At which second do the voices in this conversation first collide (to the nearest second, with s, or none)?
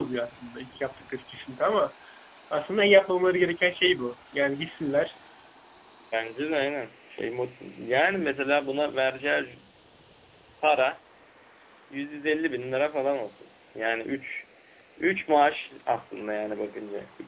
none